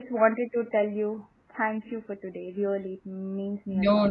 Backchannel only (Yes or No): No